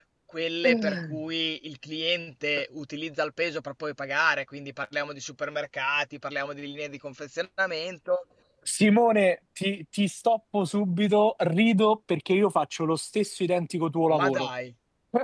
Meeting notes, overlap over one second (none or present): none